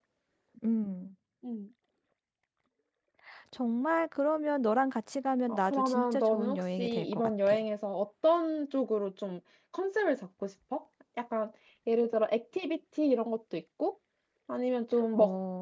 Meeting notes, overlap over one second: present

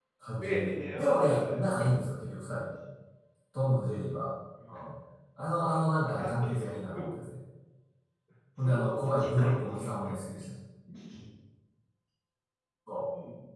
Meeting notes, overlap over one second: present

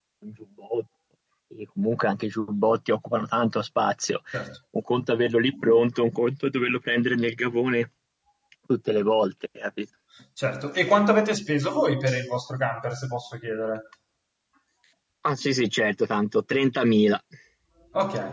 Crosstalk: none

